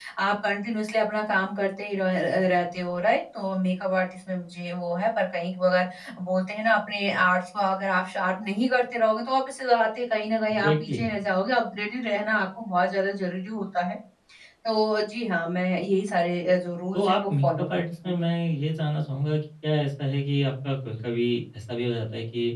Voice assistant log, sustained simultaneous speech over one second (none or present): present